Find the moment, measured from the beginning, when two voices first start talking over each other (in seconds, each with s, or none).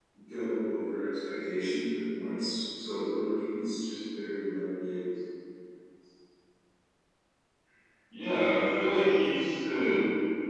none